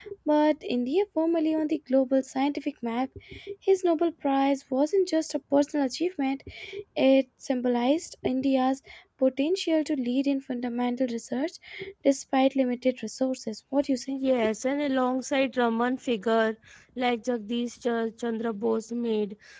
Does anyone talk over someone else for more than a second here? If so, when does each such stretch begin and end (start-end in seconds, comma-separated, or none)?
none